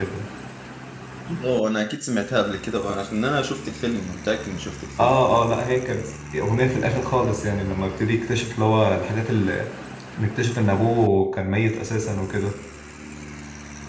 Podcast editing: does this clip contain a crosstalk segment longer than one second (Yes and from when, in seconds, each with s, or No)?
No